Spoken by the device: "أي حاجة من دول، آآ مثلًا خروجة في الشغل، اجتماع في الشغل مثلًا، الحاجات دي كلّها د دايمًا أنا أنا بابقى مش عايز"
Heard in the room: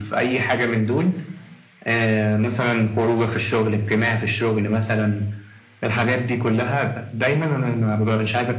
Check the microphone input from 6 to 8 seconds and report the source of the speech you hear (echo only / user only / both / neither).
echo only